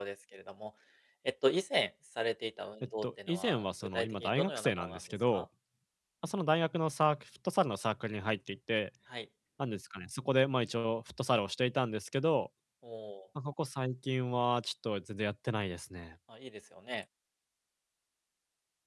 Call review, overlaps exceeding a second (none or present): present